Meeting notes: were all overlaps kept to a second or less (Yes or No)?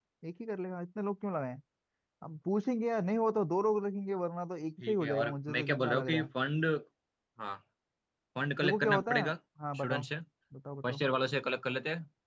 No